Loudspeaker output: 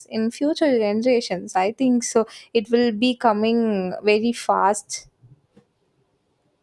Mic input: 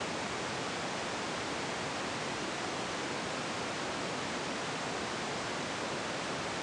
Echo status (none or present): none